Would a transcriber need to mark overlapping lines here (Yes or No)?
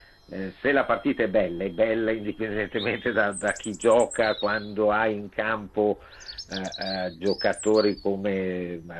No